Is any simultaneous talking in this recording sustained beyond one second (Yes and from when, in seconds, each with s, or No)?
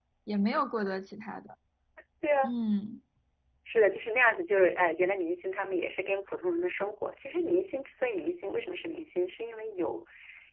No